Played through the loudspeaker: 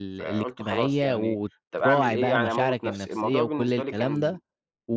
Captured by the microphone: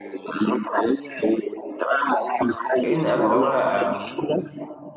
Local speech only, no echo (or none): لأن أنا لو أنا